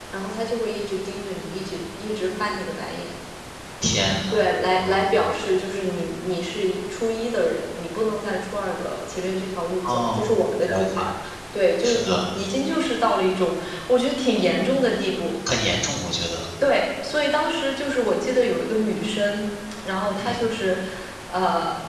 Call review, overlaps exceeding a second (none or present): present